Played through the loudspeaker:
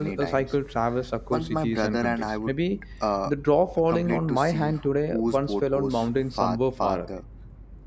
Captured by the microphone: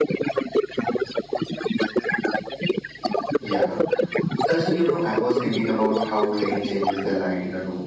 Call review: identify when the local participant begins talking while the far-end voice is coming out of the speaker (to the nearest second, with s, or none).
3 s